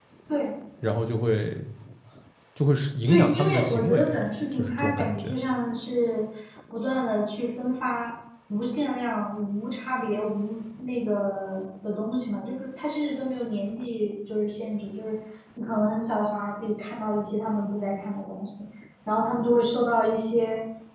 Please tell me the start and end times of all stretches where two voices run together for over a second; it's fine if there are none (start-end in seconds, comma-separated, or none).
3.1-5.4